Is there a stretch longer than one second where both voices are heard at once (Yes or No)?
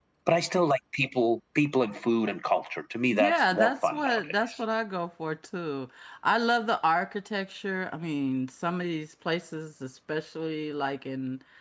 Yes